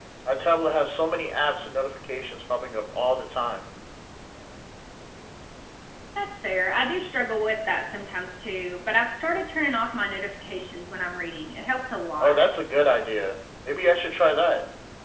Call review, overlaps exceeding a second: none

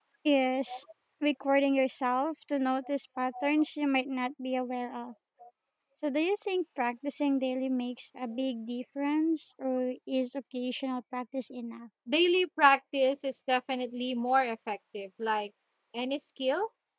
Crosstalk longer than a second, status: none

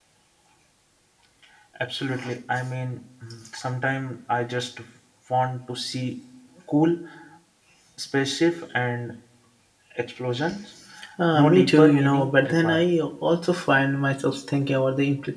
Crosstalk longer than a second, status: present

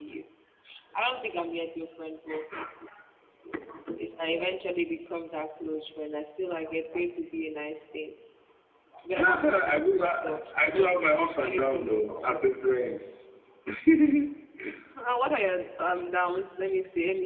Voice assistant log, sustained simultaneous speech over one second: present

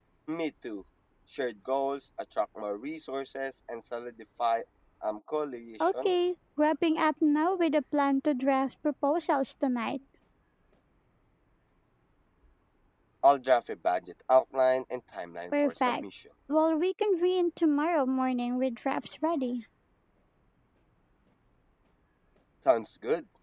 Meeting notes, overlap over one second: none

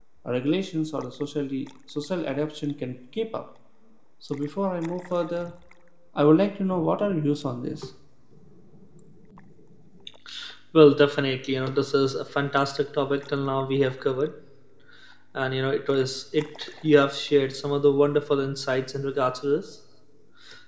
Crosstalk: none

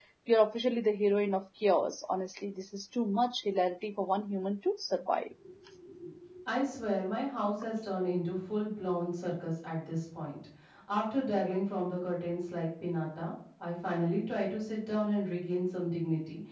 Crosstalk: none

